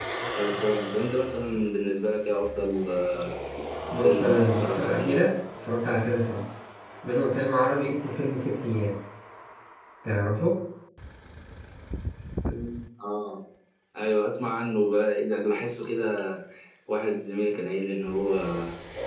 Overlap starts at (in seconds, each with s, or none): 4.0 s